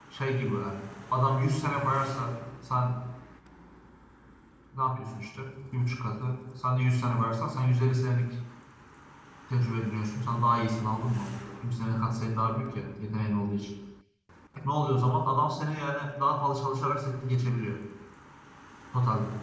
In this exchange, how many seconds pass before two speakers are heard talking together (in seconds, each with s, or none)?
none